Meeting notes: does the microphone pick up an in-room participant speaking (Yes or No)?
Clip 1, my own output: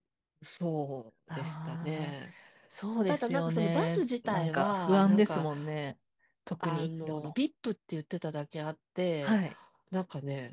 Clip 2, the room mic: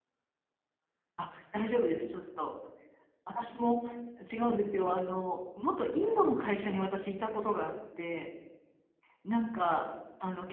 Yes